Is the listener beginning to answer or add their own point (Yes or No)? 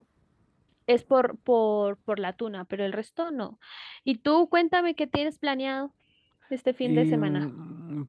Yes